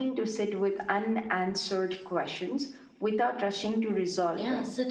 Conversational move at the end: taking over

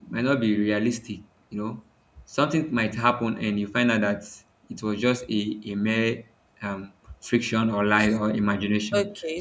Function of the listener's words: taking over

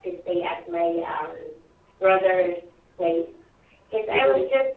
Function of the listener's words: listening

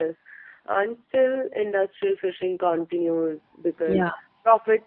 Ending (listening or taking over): listening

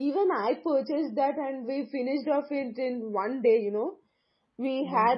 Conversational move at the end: listening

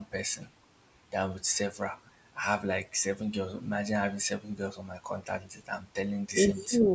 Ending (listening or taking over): listening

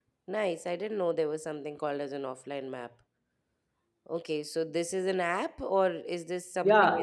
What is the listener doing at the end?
taking over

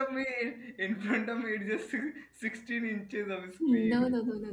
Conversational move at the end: taking over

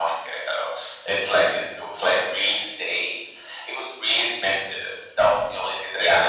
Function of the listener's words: listening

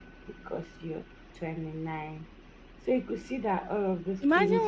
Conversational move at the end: taking over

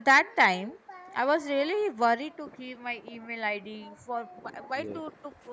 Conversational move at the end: listening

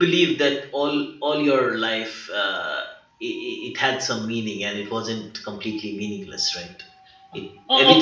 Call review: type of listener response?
taking over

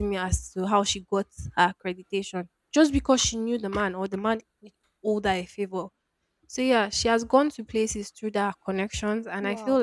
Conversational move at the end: listening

